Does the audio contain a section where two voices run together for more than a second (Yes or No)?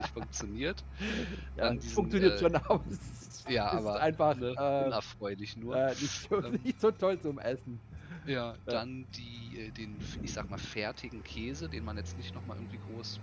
Yes